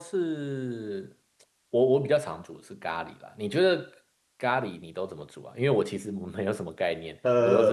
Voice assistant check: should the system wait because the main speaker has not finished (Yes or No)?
No